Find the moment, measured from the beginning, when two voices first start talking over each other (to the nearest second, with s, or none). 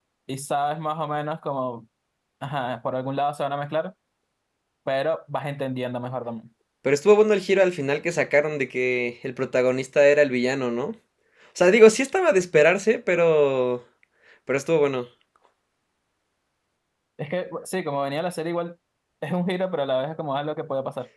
none